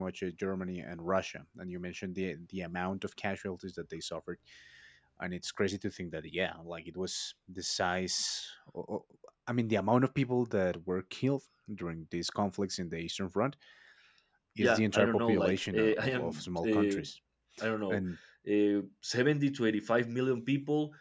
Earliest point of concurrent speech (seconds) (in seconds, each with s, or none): 14.6 s